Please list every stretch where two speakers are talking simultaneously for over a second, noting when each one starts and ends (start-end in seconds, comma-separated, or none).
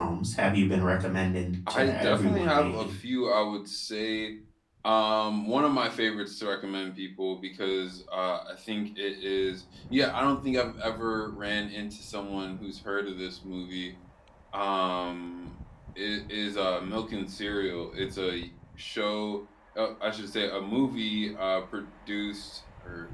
1.7-2.9